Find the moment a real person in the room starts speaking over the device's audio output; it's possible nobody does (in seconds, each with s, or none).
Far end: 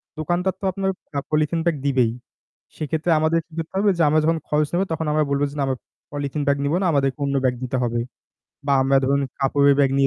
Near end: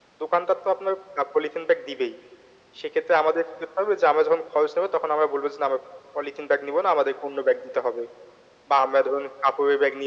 none